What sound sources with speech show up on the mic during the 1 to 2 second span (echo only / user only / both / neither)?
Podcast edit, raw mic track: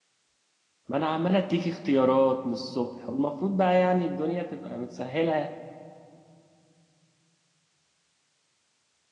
user only